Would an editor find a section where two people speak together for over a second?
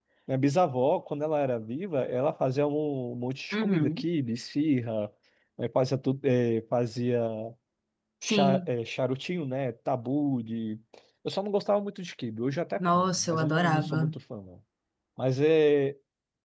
Yes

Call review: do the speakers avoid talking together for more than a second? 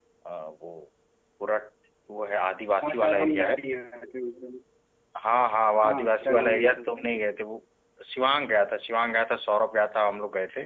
No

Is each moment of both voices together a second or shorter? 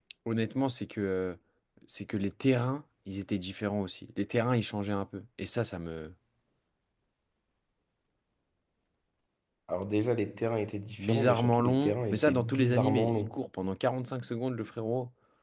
No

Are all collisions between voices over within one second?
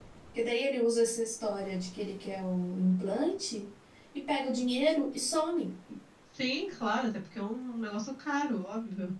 Yes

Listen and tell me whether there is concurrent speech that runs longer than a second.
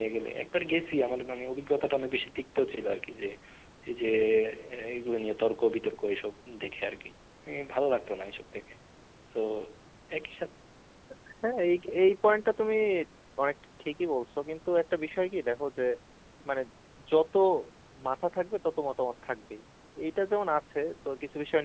No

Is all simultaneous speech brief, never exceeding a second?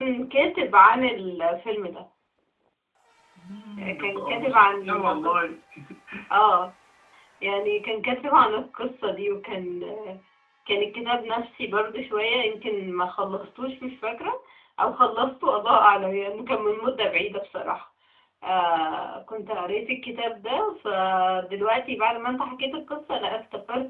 No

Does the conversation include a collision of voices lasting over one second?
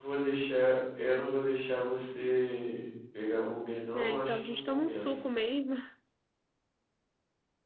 Yes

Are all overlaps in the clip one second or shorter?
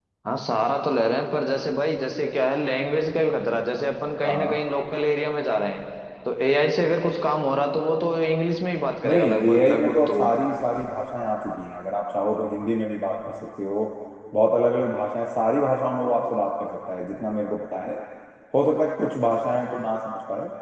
No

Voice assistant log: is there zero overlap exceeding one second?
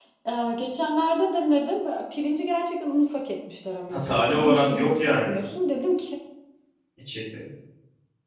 No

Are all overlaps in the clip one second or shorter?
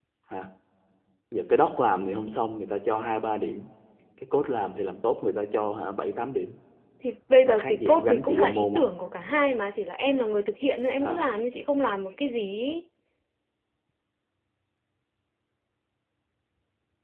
No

